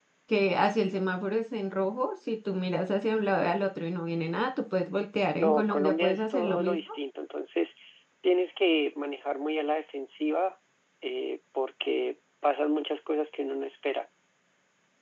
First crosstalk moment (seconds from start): 5.4 s

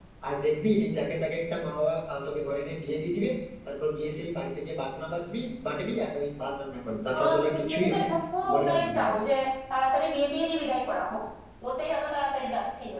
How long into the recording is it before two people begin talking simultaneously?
7.1 s

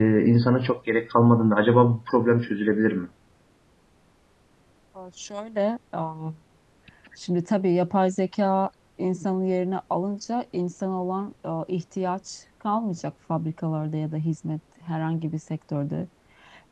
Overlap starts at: none

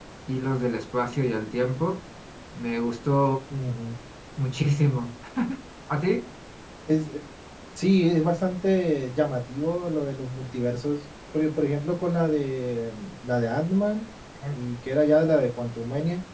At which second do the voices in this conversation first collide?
none

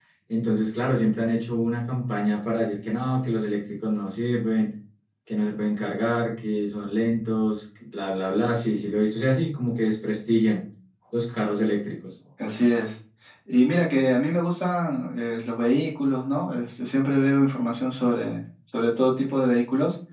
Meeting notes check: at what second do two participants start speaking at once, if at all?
none

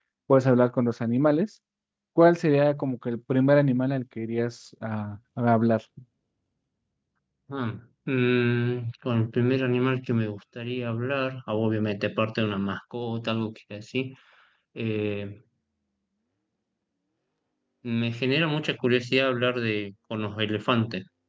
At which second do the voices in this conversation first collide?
none

